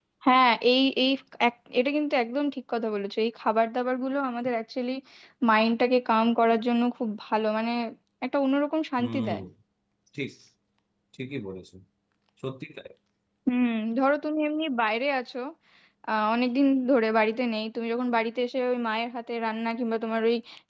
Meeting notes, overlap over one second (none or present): none